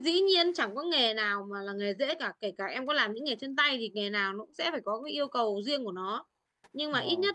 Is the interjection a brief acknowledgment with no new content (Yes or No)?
Yes